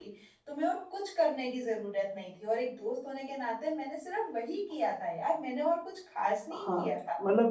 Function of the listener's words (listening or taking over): taking over